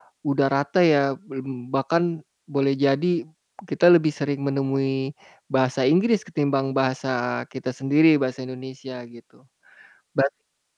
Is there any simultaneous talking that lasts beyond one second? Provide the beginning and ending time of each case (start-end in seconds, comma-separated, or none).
none